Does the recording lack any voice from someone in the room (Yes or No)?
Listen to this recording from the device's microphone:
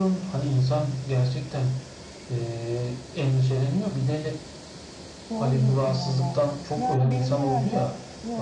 No